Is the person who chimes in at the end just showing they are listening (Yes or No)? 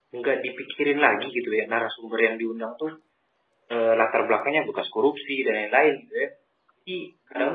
Yes